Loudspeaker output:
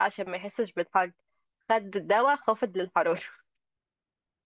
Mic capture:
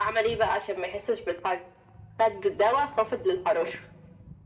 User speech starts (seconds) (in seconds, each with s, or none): none